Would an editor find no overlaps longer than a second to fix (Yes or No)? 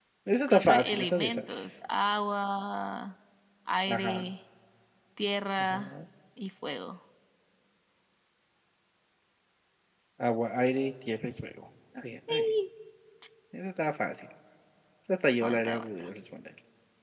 No